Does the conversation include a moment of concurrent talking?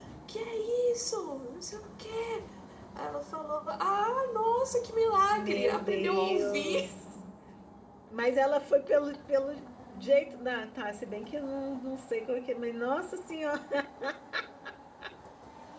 Yes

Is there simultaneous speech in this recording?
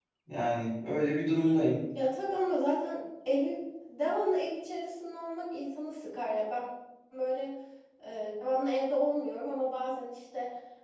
No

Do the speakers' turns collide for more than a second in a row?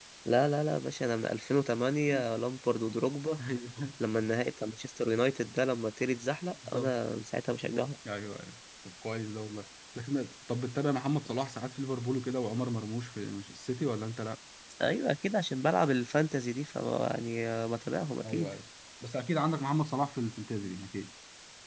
No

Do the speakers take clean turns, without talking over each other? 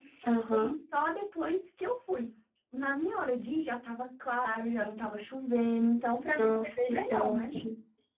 No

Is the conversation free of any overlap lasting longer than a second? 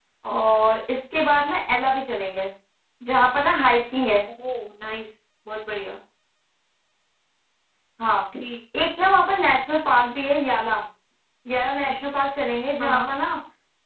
Yes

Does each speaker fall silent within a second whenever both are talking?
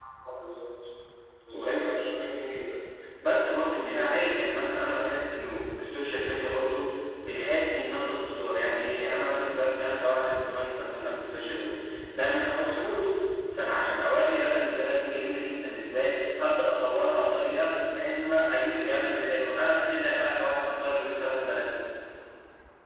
Yes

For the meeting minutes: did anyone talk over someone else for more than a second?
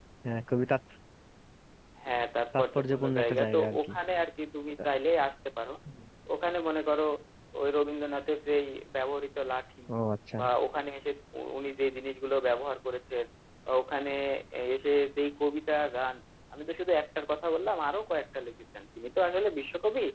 Yes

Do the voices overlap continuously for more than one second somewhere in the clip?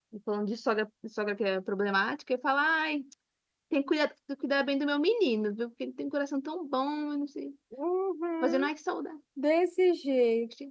No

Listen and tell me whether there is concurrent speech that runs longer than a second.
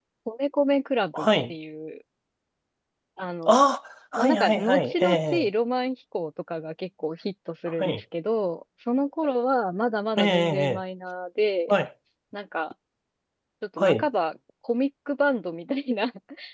Yes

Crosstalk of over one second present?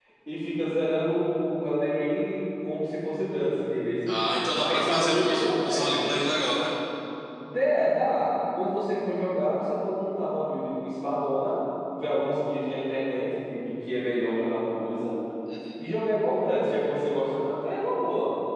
Yes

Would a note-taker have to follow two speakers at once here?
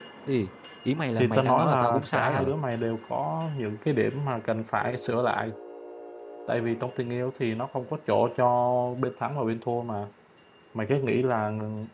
Yes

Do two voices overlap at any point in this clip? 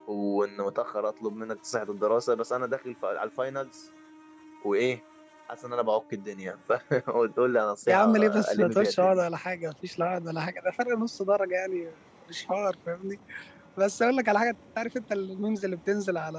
Yes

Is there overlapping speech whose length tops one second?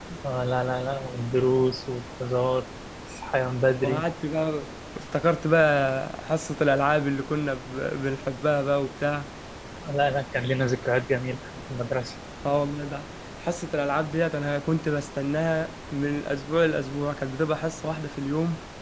No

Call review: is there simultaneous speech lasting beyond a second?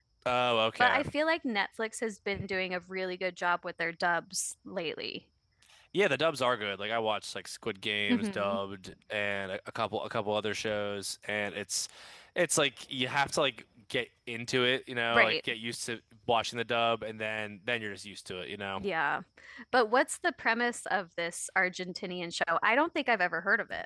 No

